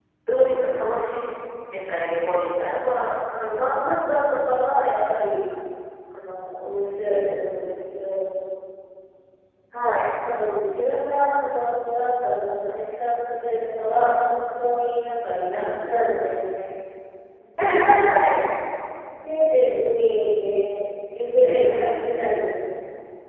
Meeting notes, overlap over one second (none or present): none